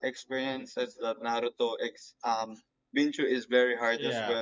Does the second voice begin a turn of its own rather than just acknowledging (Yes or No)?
Yes